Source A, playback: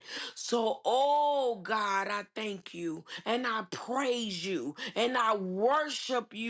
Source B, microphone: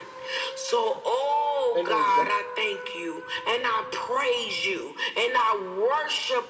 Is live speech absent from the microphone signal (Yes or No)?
No